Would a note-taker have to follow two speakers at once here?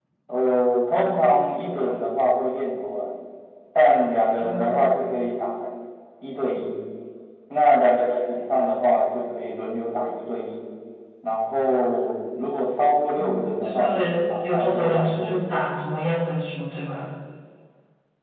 Yes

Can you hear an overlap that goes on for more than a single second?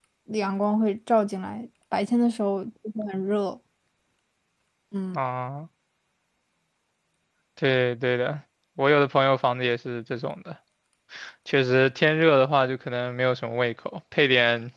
No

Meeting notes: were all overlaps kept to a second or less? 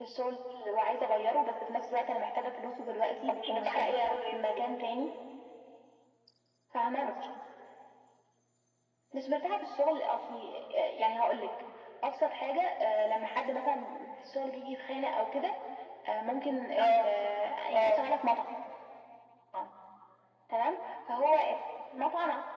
No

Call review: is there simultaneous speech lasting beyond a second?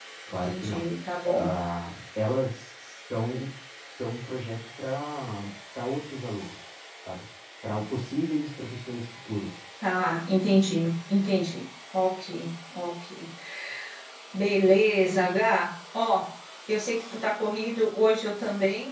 No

